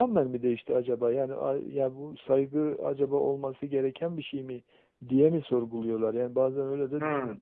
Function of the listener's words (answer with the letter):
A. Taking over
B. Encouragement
A